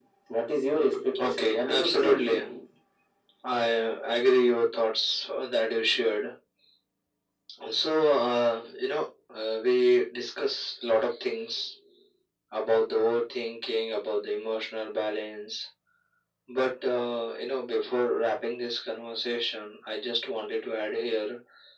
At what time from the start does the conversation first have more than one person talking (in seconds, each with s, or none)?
1.2 s